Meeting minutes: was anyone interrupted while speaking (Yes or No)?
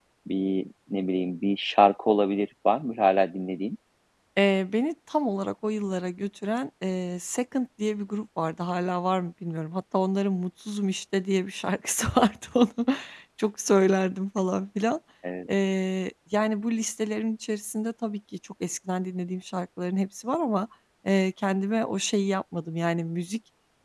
No